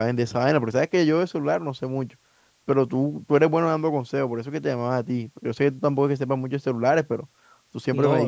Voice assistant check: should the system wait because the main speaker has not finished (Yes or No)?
Yes